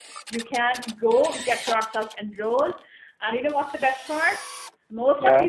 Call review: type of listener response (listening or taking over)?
listening